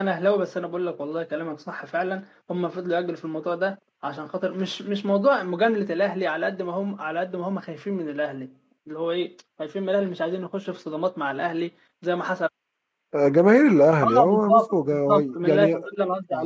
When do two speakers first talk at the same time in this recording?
14.0 s

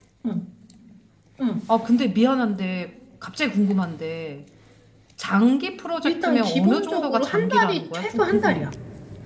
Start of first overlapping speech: 6.0 s

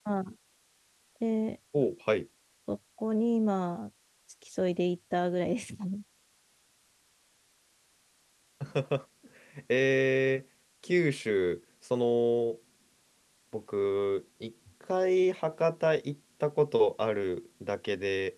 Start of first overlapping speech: none

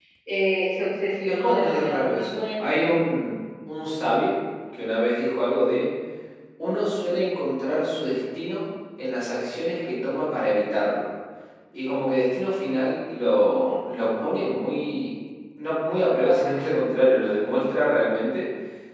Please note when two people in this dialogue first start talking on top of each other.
1.3 s

